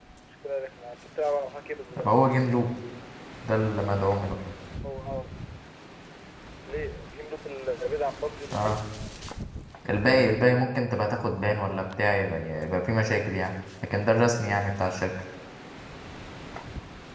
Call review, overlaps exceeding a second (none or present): none